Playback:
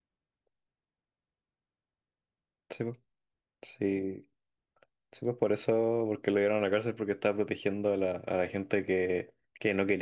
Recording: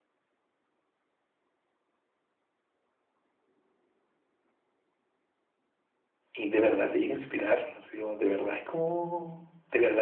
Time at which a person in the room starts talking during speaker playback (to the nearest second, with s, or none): 6 s